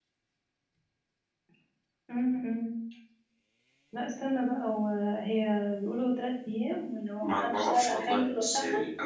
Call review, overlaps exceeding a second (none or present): present